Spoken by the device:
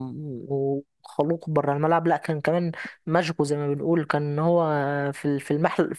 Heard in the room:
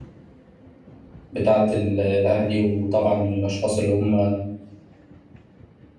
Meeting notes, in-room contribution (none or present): present